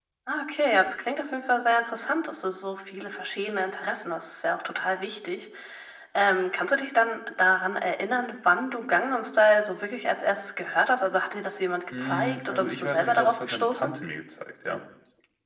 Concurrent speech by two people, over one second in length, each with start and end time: 12.0-13.9

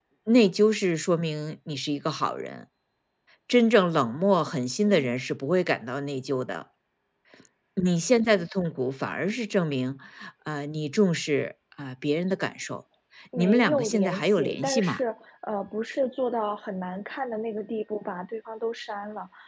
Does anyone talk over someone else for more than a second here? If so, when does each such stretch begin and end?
13.3-15.0

